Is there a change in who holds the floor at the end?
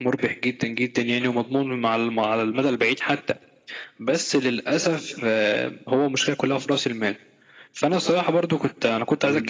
No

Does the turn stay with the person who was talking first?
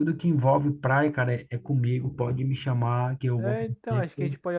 No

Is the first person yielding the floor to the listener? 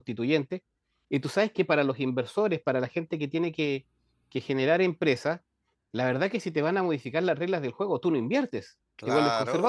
Yes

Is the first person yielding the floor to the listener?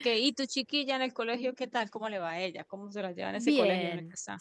Yes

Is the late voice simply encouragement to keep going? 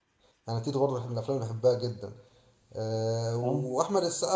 Yes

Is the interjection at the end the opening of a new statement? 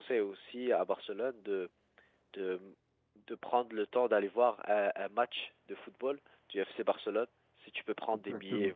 Yes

